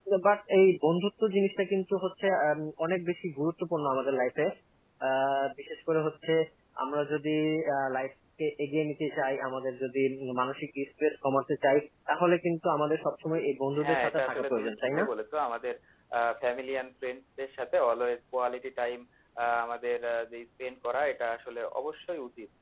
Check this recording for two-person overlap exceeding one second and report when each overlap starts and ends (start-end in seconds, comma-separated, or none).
13.8-15.0